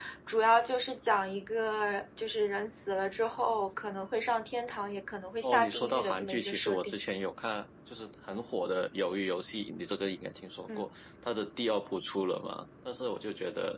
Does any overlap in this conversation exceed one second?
Yes, from 5.4 s

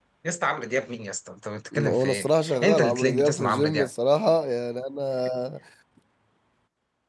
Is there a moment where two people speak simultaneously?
Yes, from 1.7 s

